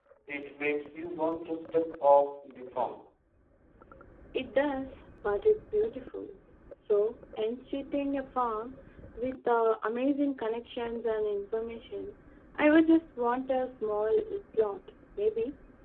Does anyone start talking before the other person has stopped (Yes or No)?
No